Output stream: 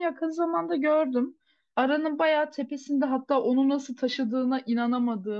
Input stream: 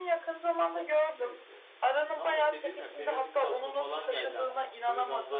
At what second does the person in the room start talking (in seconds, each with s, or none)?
1.2 s